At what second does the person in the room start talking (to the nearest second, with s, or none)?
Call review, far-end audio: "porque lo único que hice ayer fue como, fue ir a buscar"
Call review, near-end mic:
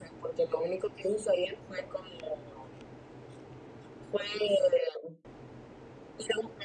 none